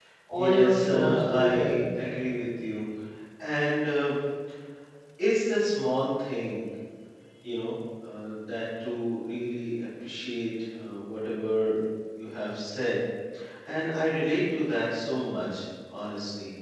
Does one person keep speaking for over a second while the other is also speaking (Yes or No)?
Yes